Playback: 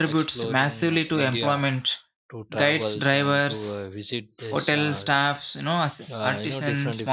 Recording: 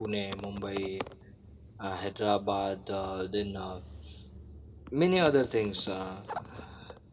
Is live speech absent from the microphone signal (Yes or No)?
No